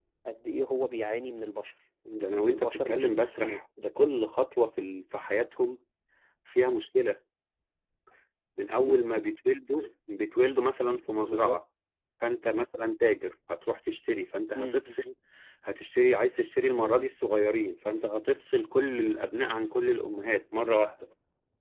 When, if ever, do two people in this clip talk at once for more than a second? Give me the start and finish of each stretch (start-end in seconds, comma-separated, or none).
2.3-3.6